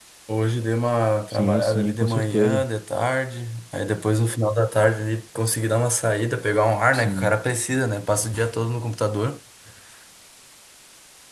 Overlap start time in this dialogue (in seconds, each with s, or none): 1.3 s